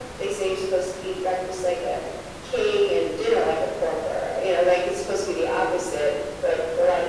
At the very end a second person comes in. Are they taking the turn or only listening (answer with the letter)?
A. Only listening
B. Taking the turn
A